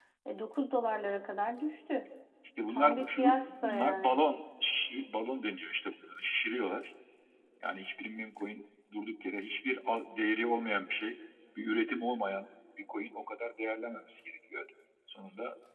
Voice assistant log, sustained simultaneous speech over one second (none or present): present